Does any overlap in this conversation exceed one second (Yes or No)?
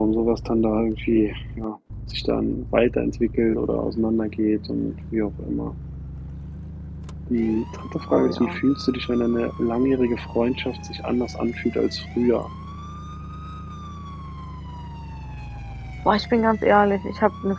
No